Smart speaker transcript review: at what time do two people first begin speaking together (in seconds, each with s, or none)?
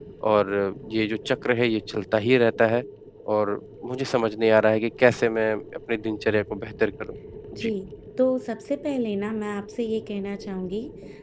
none